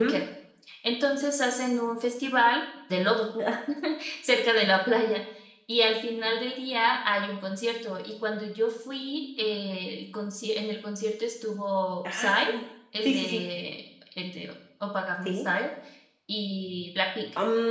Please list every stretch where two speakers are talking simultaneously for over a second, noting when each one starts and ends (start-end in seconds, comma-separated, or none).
none